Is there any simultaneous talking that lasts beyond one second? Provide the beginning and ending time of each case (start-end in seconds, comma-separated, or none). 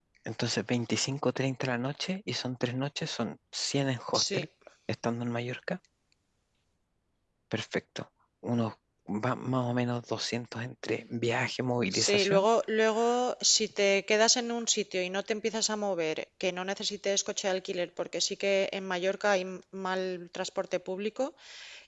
none